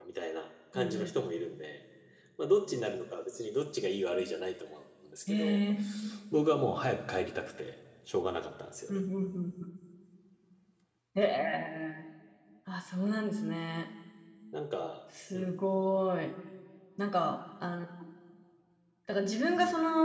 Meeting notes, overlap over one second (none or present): none